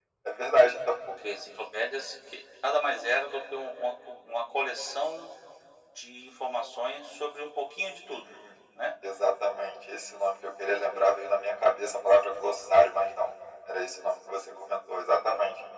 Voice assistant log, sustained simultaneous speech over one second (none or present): none